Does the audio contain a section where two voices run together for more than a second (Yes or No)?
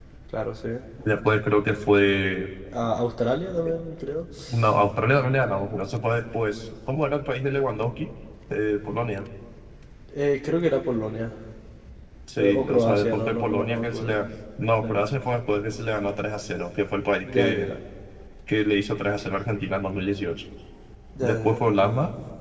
Yes